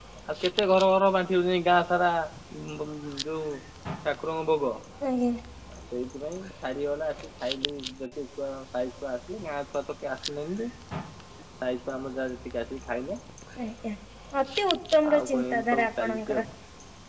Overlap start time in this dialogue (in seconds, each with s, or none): 15.1 s